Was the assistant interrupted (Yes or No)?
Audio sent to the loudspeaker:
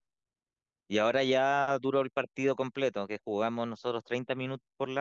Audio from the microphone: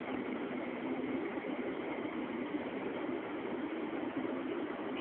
No